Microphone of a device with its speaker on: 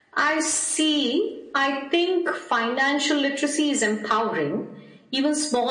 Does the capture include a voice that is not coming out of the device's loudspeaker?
No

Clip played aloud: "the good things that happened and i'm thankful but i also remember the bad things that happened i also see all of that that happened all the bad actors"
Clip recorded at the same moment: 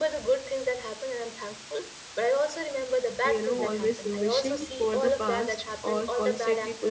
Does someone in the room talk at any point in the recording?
Yes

